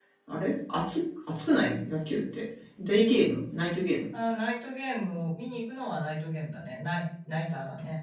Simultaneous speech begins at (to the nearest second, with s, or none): none